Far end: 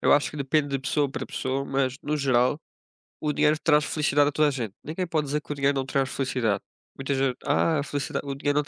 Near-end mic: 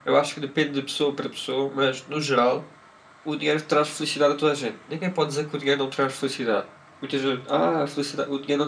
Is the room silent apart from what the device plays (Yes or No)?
Yes